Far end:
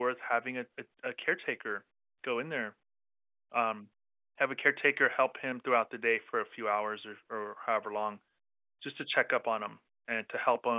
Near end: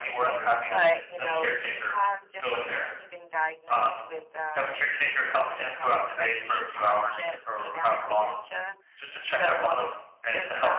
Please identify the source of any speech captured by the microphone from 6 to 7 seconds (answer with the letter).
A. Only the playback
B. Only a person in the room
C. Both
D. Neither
C